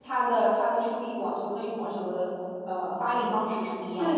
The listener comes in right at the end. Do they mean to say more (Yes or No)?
Yes